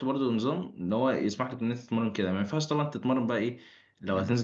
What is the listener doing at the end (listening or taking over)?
listening